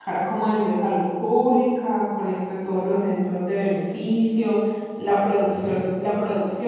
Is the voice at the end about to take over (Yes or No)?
No